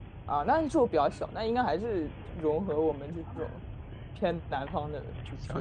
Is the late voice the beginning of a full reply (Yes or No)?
Yes